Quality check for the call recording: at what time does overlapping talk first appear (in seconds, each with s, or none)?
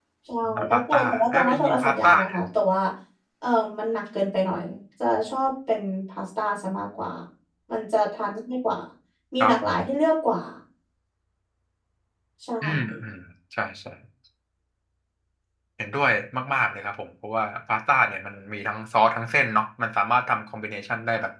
0.5 s